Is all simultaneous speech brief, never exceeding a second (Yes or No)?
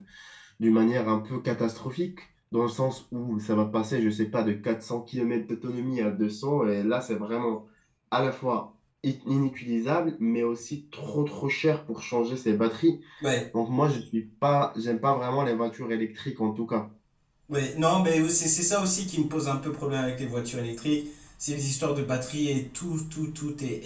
Yes